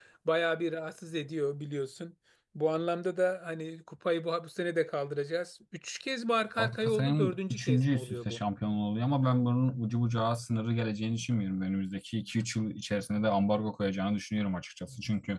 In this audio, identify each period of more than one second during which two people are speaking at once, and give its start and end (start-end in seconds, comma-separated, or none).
6.6-8.4